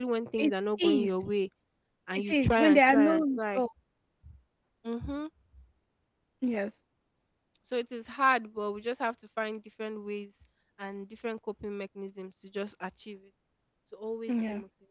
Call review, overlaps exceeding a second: present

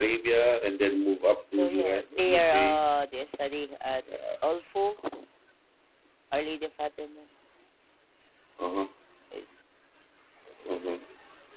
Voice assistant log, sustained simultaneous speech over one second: present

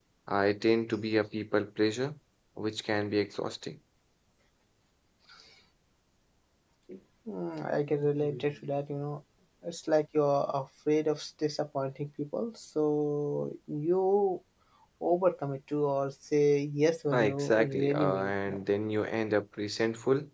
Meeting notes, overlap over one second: present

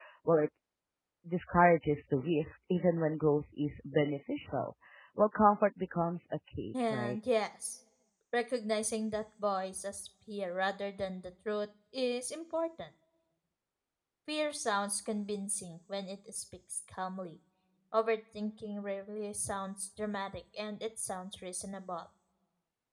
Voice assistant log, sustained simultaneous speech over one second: none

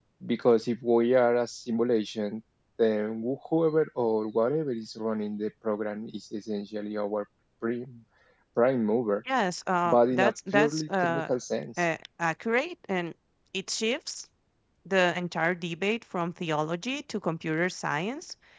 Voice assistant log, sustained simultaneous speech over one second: present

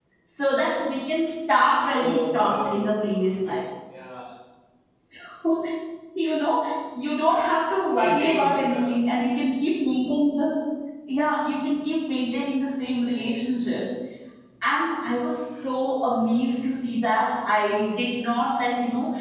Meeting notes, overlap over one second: present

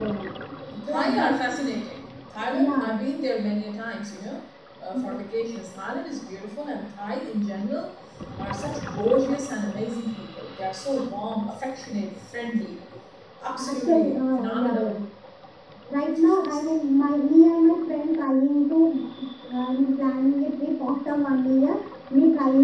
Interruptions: present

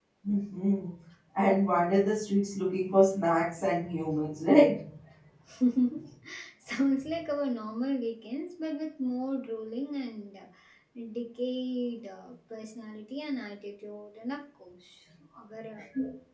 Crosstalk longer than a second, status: none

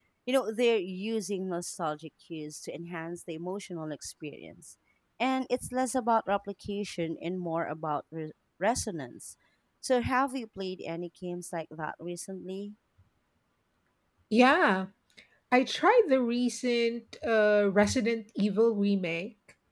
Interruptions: none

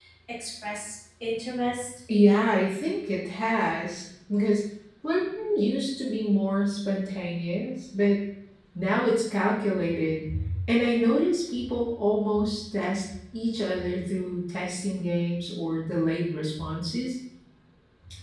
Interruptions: none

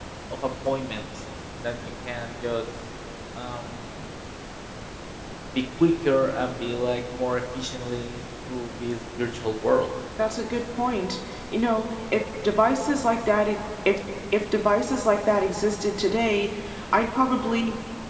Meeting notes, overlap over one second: none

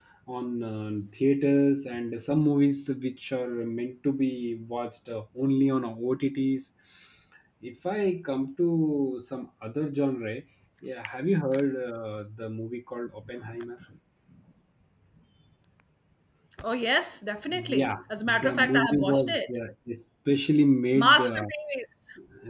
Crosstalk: present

